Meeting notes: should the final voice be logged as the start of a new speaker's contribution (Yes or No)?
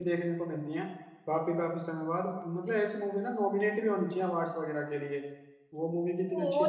Yes